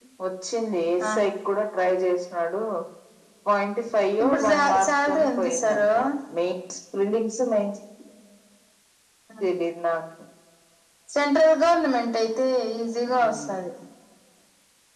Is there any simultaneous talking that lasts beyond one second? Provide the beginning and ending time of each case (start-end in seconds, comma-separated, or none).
4.2-5.9